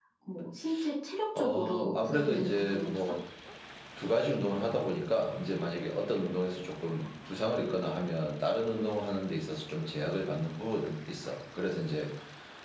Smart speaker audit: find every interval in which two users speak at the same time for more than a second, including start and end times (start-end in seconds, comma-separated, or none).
1.4-3.0